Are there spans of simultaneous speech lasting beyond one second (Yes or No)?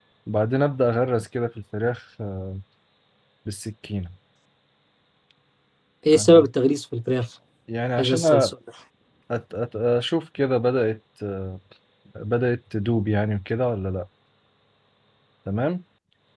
No